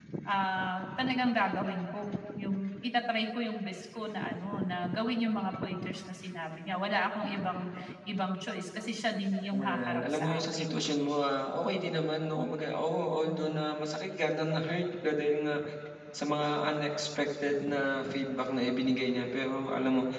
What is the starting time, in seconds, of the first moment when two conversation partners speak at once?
9.5 s

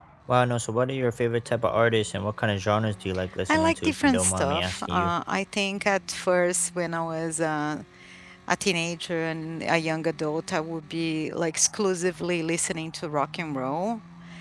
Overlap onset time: 3.5 s

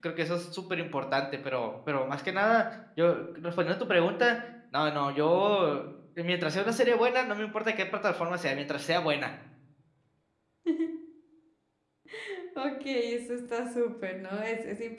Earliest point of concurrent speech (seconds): none

